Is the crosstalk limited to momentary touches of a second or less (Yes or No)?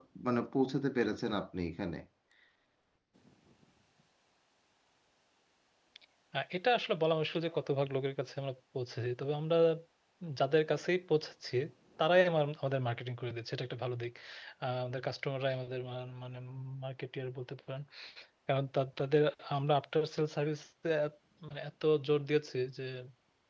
Yes